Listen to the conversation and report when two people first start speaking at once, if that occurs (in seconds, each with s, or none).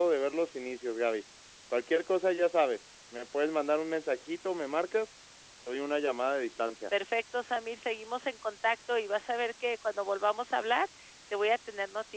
none